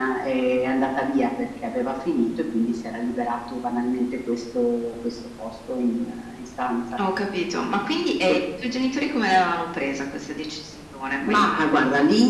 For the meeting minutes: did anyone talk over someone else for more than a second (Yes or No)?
No